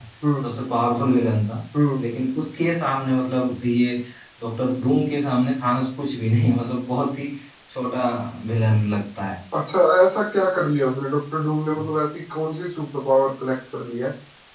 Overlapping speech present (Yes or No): No